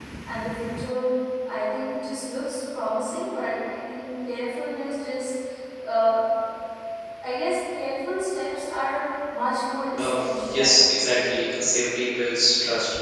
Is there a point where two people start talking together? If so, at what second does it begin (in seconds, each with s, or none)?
10.0 s